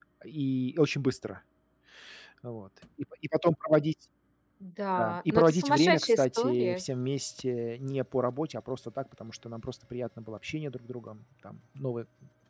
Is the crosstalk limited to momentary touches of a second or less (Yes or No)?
No